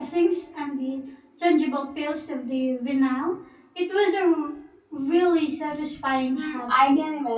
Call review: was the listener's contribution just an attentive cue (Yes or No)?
No